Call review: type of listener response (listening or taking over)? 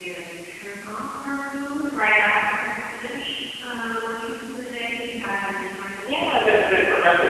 taking over